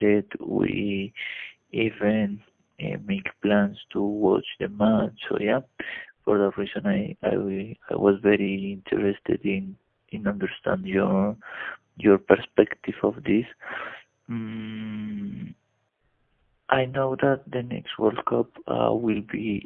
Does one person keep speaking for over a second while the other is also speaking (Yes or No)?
No